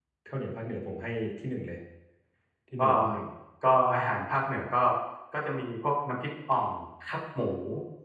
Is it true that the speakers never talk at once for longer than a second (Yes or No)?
Yes